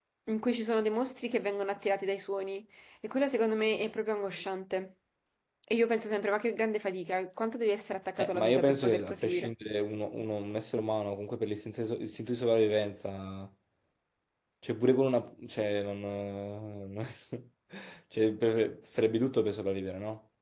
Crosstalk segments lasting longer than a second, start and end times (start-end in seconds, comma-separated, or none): 8.2-9.5